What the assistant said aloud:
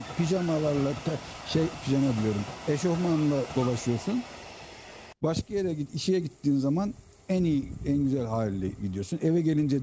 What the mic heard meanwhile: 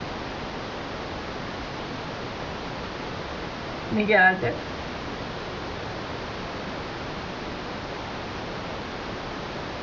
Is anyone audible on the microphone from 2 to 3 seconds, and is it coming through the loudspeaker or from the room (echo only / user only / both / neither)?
neither